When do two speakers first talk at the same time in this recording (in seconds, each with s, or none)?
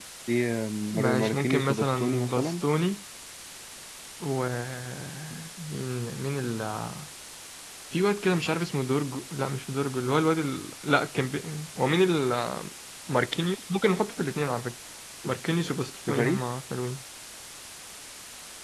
0.9 s